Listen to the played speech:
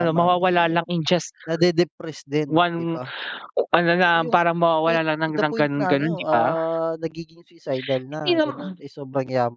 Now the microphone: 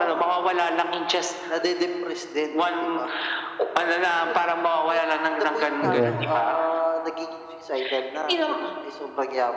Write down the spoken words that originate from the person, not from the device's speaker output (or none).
Di ba?